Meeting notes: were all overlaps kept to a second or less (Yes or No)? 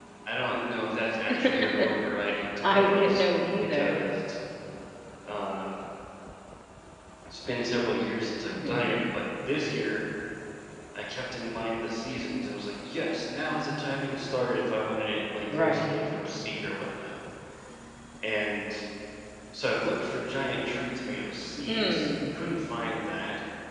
No